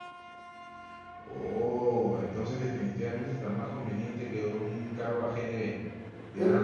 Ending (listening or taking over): taking over